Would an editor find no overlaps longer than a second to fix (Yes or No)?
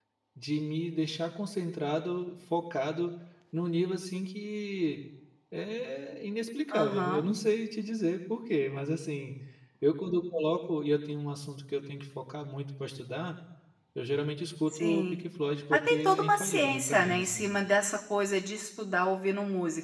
No